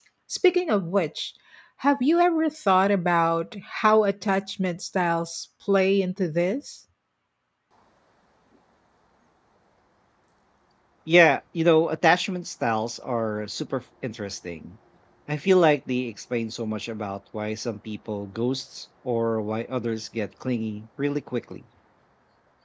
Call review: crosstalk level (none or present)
none